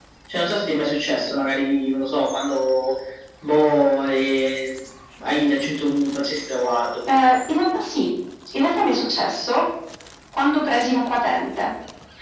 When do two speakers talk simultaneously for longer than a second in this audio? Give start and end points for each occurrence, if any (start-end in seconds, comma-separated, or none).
none